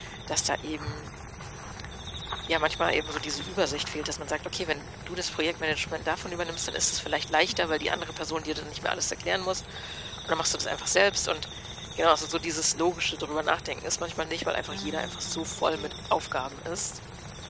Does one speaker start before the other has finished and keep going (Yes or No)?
Yes